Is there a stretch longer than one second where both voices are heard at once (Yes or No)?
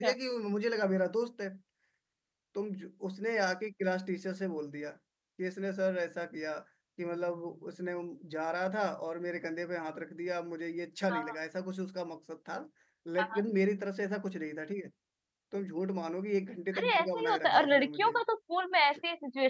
Yes